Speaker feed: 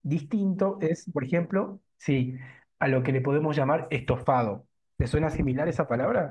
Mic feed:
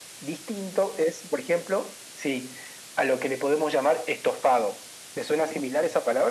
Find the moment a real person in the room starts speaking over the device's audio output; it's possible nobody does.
none

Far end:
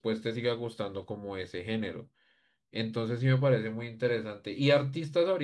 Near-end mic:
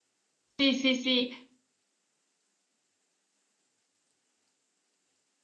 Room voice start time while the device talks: 0.6 s

